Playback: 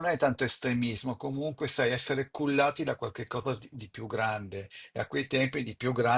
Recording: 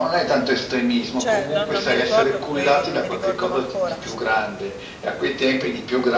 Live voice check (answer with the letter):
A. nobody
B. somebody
B